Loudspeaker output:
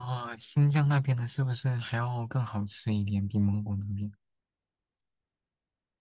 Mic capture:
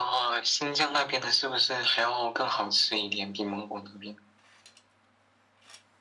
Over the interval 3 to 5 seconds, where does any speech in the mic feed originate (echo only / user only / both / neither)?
echo only